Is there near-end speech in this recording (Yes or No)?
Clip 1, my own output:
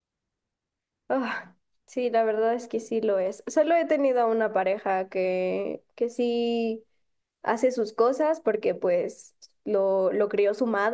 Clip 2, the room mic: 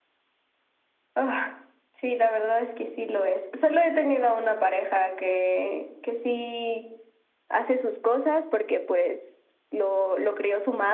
No